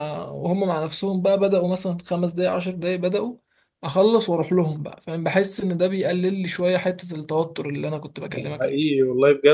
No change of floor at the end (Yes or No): No